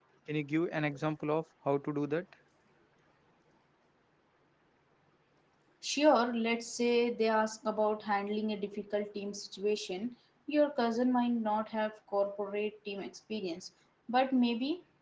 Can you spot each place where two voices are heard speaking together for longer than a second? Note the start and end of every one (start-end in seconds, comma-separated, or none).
none